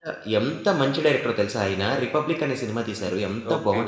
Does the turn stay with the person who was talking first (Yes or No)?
Yes